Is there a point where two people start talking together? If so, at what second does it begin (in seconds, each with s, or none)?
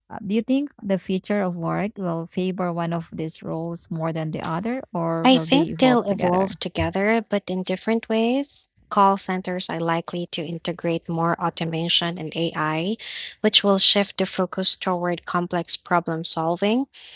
5.2 s